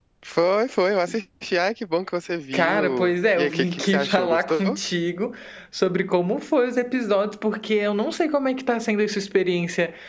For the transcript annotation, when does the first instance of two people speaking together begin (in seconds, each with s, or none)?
2.5 s